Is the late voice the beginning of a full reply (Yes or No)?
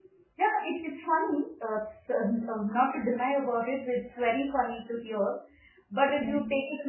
No